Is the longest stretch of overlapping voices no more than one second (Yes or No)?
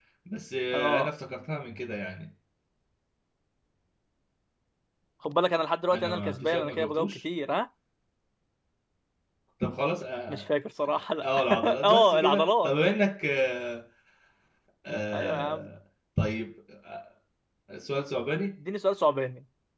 No